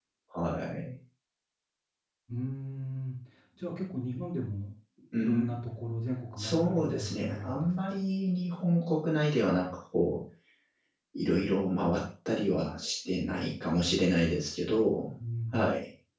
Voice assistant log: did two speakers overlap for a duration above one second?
Yes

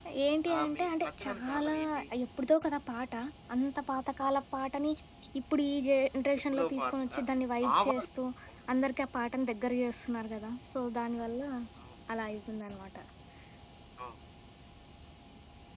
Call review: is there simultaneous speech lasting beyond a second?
Yes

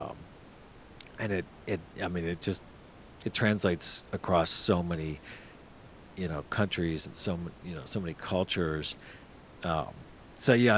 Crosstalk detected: No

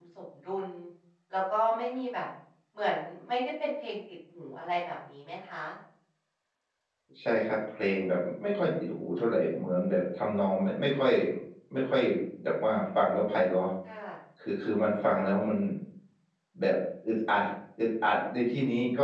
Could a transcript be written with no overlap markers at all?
Yes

